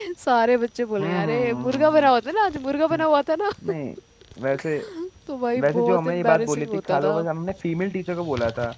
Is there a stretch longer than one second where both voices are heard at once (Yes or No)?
Yes